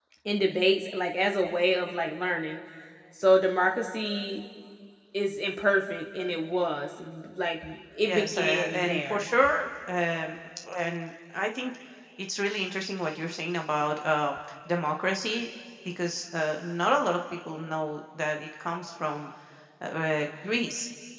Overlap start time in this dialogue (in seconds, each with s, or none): 8.1 s